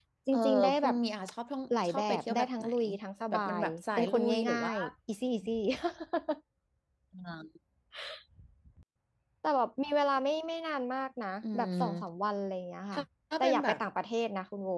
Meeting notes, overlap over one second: present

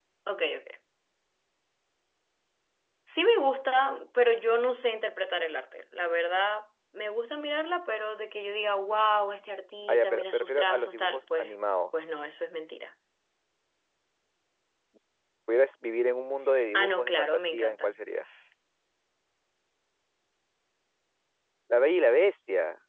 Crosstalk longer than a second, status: present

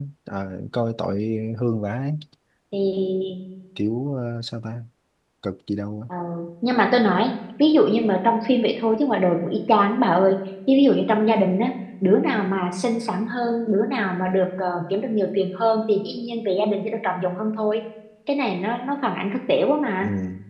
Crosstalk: none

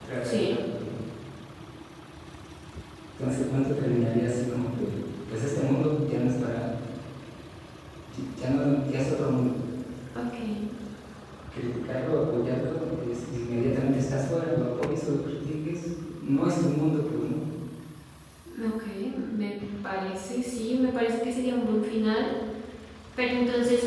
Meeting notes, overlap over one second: none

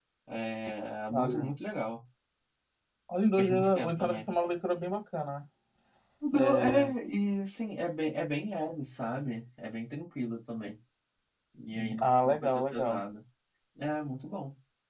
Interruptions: present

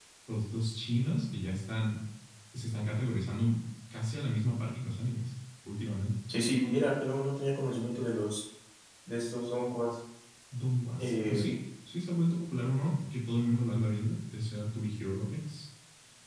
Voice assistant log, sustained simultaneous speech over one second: none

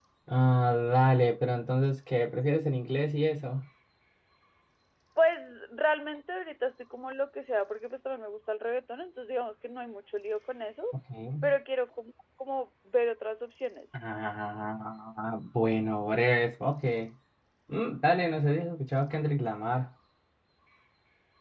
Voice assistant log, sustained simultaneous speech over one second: none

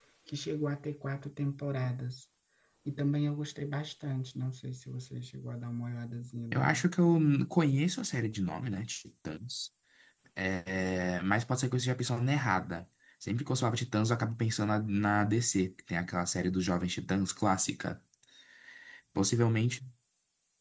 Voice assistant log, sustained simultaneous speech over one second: none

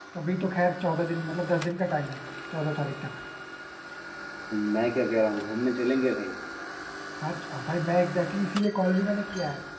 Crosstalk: none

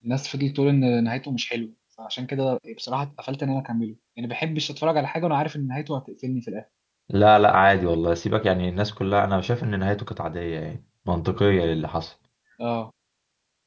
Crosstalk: none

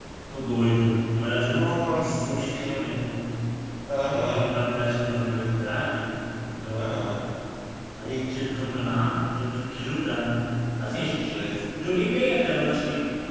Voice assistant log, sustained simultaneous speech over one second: present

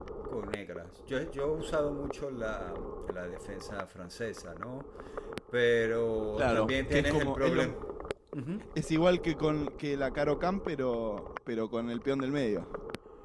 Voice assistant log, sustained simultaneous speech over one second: present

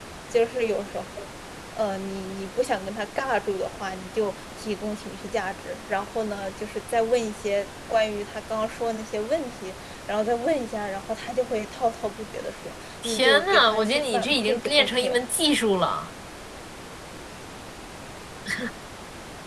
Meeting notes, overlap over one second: present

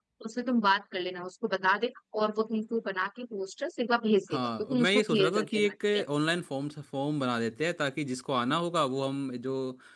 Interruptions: present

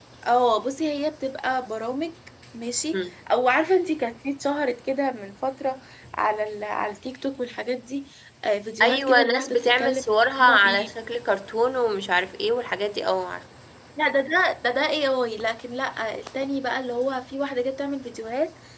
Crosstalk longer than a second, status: present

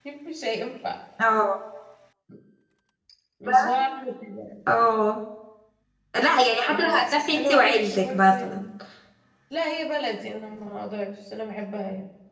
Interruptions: present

